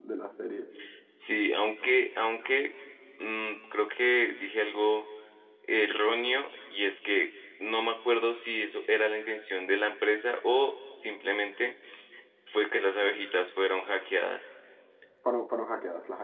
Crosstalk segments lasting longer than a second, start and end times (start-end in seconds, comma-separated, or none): none